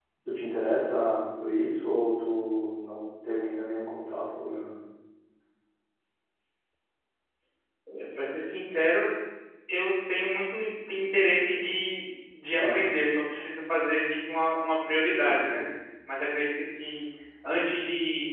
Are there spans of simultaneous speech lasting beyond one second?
No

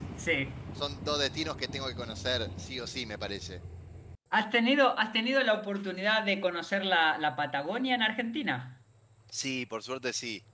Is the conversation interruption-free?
Yes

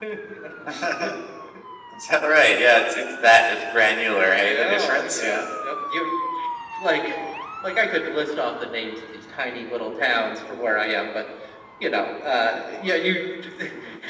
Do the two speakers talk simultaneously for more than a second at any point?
Yes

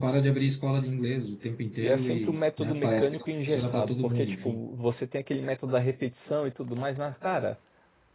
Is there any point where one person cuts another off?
Yes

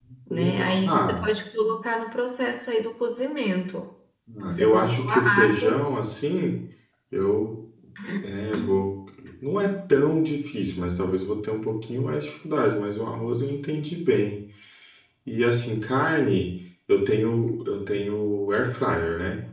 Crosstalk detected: Yes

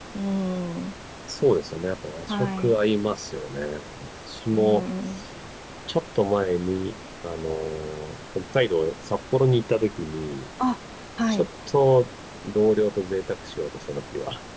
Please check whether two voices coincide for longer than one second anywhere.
No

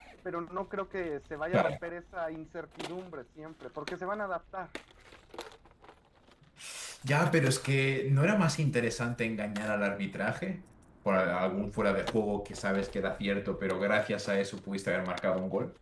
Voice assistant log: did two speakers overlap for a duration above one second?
No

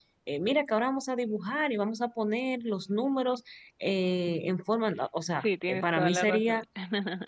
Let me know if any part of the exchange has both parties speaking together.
Yes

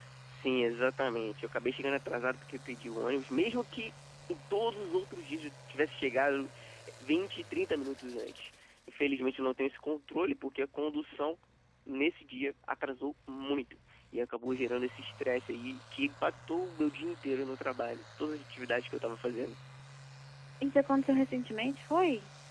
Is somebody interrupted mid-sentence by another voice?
No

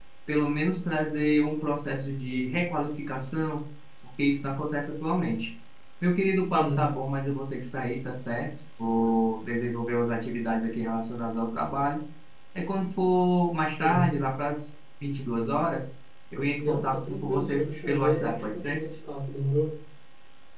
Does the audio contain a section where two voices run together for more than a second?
Yes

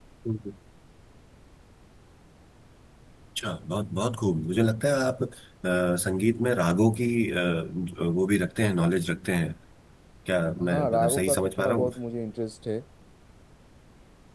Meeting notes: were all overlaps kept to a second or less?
No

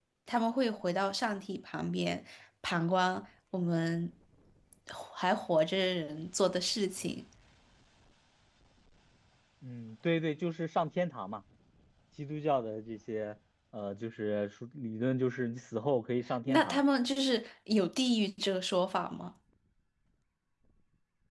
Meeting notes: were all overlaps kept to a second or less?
Yes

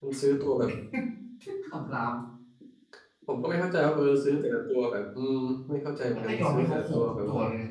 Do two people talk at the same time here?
Yes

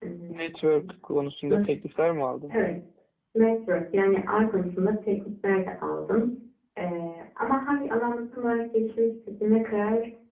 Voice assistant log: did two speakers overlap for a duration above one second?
No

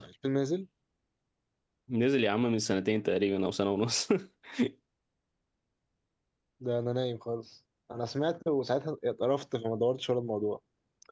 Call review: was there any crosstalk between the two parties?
No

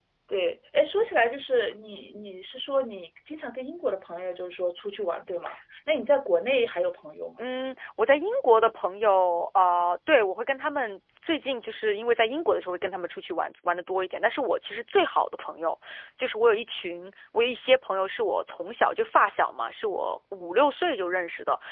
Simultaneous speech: No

